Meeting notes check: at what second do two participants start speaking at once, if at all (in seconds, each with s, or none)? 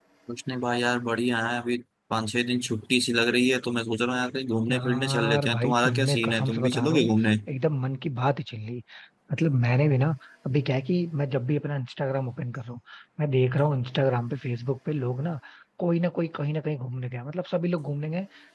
4.7 s